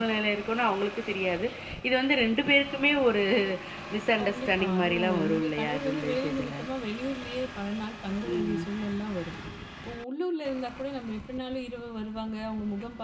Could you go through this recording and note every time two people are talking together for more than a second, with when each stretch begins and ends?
4.2-6.5

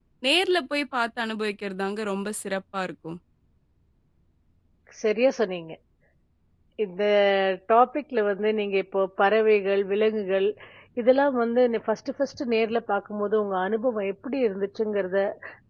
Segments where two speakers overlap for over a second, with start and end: none

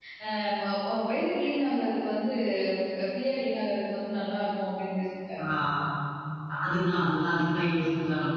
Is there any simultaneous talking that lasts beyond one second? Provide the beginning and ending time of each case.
none

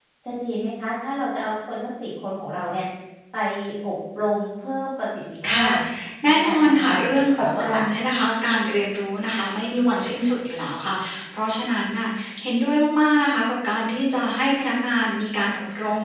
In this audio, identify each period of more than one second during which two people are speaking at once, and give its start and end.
6.2-7.8

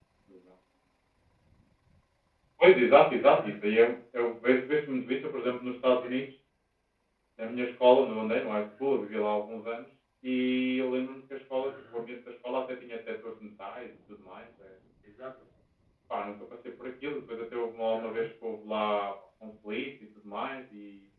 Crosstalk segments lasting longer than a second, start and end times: none

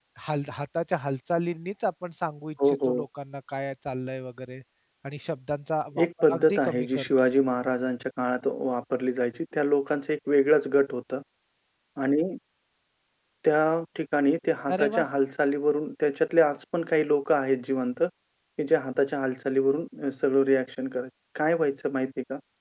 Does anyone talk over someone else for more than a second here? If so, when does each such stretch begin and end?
6.0-7.3

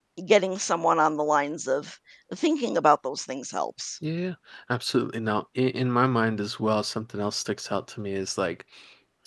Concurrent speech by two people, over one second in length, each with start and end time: none

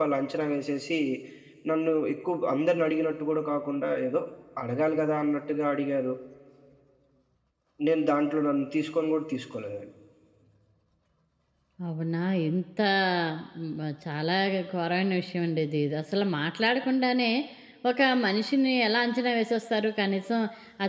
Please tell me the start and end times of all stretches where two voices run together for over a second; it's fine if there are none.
none

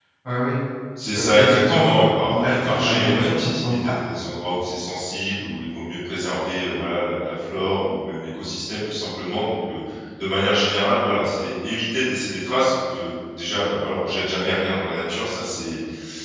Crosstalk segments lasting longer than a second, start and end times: 1.2-3.9

